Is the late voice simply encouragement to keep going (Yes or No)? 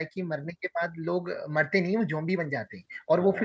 Yes